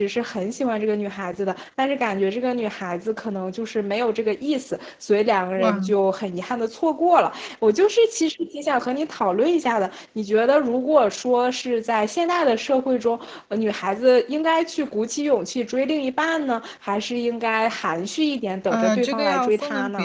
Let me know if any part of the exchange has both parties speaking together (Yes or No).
Yes